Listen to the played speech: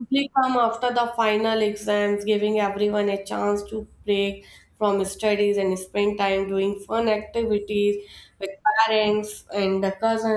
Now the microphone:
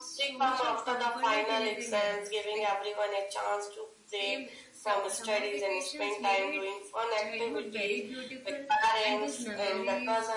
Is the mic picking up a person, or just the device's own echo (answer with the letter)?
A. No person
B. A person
B